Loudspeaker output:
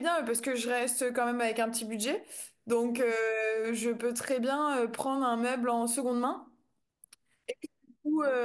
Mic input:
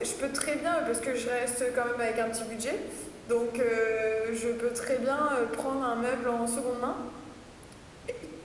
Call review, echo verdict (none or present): present